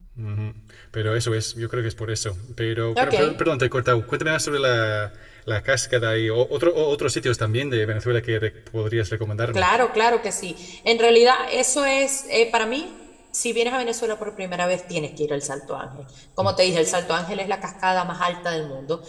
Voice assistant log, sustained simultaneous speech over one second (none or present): none